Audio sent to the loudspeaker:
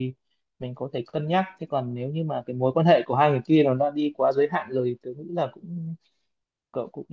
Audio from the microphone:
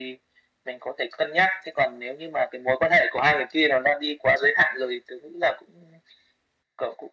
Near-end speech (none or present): none